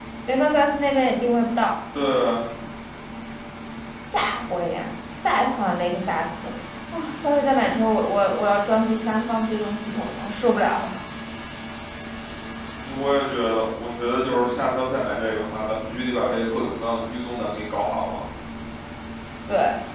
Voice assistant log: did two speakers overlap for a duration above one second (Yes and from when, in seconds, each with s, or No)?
No